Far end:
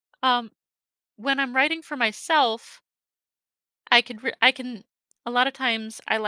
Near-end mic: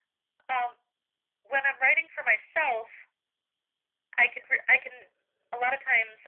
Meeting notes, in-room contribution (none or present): none